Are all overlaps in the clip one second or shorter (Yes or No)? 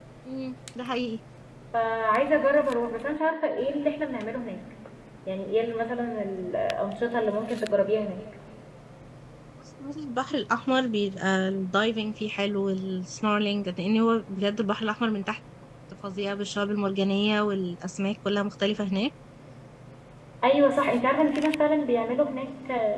Yes